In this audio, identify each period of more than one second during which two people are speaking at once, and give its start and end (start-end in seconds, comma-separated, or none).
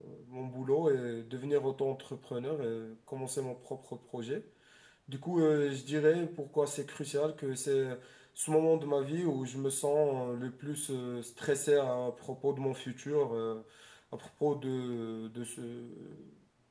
none